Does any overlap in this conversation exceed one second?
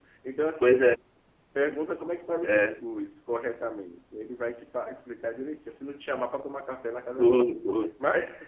No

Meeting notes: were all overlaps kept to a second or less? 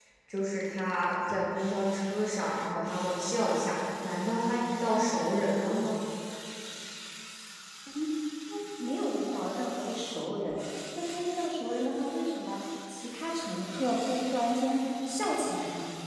Yes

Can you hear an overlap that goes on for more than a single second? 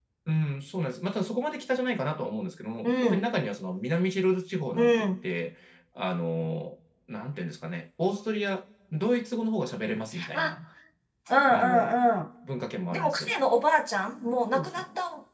No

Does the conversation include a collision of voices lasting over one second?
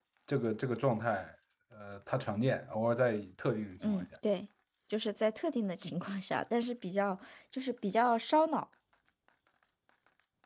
No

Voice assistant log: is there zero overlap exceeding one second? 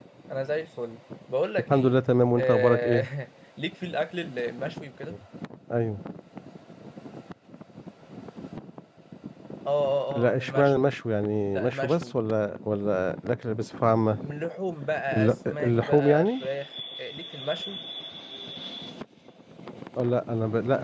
No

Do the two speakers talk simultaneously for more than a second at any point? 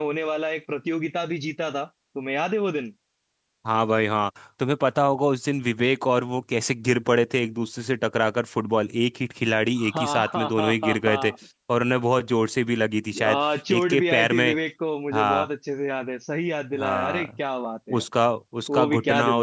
Yes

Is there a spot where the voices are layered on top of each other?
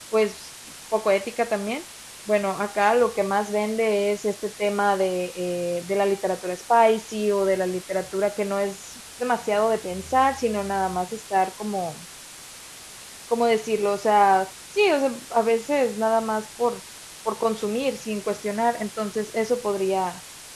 No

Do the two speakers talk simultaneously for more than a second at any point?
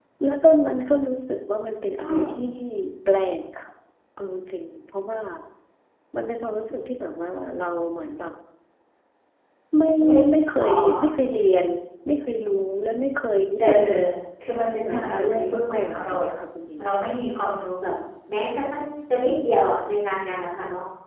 Yes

